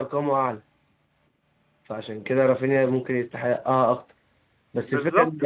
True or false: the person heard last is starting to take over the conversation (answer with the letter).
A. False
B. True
A